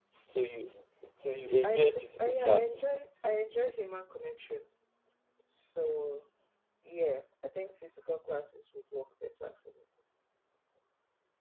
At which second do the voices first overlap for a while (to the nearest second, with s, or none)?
2 s